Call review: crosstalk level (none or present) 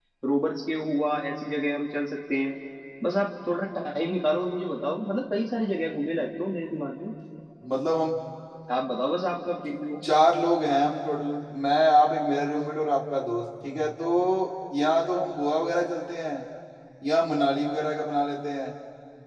none